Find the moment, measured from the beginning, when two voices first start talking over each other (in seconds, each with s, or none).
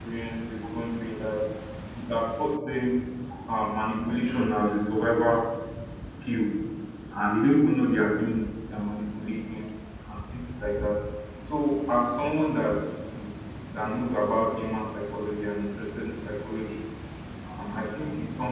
none